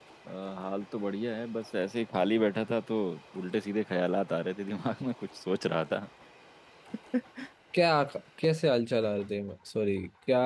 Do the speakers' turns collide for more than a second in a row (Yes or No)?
No